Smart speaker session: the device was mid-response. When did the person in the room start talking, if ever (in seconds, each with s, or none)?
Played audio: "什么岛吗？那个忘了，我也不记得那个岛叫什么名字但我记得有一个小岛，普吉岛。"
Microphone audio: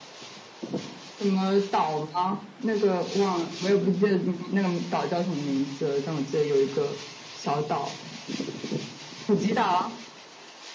none